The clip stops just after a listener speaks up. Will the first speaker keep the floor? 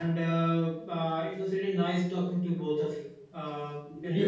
Yes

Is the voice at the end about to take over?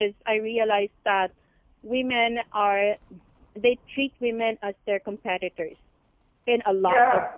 Yes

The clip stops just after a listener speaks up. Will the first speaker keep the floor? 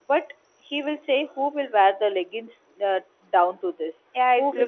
No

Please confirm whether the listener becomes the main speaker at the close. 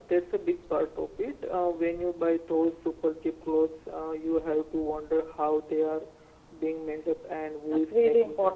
Yes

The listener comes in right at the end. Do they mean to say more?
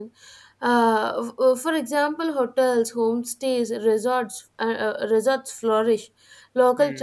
No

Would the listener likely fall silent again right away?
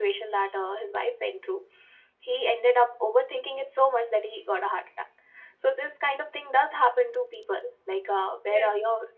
Yes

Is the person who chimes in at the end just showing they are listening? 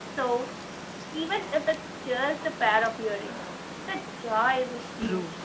No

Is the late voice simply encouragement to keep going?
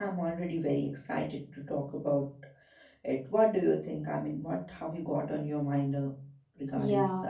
No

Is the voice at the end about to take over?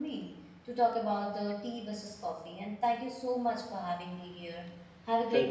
Yes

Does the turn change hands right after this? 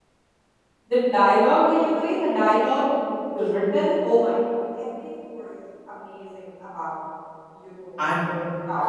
Yes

